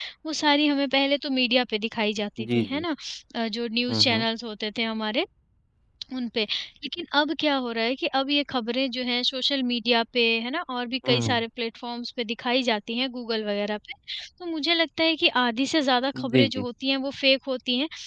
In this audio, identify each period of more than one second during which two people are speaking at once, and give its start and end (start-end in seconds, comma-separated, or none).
none